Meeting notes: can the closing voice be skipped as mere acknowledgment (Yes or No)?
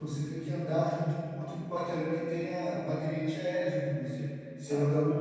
Yes